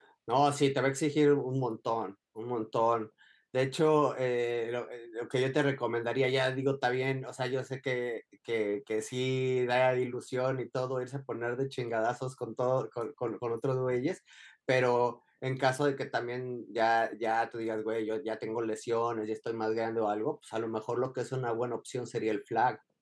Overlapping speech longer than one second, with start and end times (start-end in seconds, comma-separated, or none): none